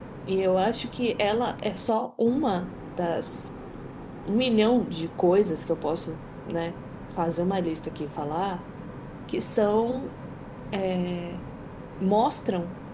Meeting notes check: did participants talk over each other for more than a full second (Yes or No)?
No